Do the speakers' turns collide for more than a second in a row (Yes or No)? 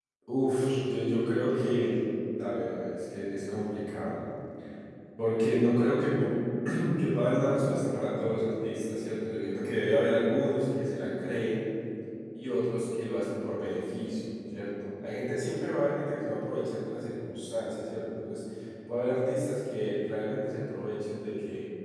Yes